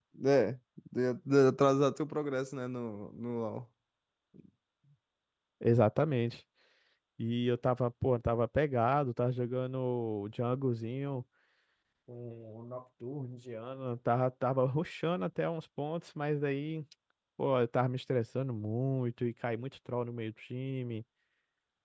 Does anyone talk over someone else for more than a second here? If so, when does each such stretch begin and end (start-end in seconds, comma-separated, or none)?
none